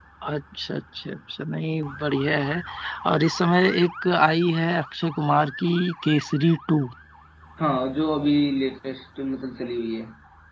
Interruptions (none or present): none